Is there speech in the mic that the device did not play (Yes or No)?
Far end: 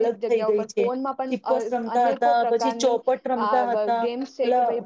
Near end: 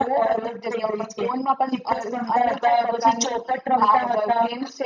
No